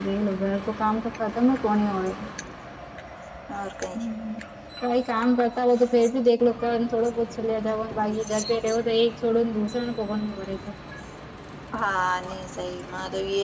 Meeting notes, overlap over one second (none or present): none